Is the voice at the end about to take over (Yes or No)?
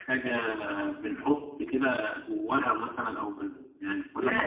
Yes